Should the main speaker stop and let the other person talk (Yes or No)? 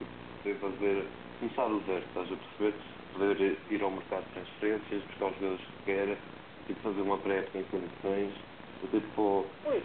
No